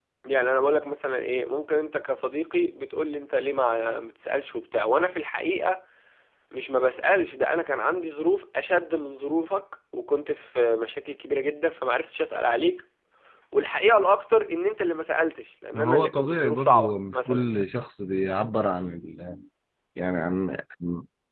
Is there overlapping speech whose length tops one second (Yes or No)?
Yes